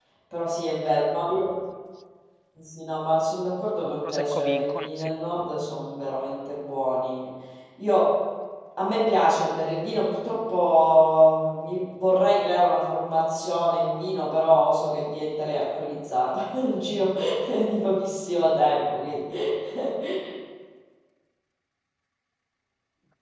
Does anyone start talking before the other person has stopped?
Yes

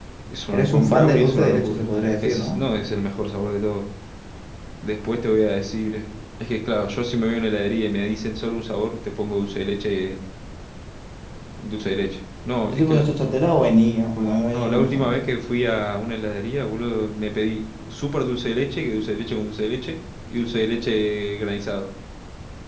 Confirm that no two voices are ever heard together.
No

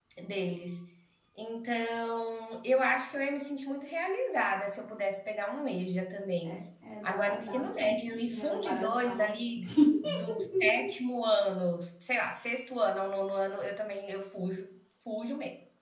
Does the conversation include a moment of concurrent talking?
Yes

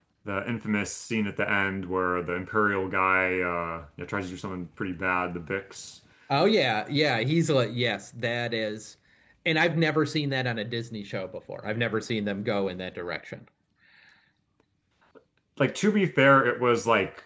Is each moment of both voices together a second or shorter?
Yes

